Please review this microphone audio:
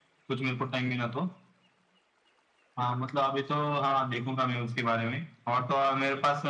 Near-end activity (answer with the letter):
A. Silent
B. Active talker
A